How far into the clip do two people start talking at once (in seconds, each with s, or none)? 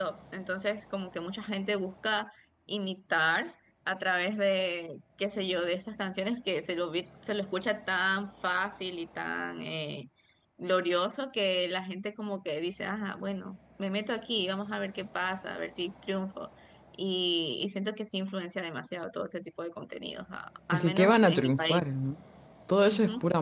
20.7 s